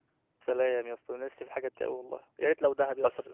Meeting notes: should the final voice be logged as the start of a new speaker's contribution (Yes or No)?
Yes